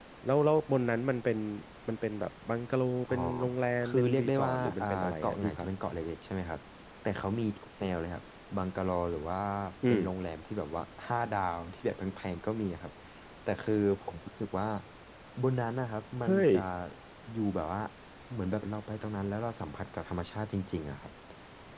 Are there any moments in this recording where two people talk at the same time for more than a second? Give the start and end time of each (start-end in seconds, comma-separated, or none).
3.8-5.7